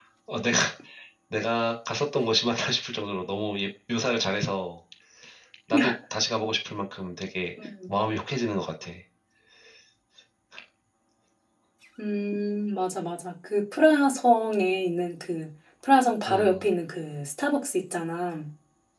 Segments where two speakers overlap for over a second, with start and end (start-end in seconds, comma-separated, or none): none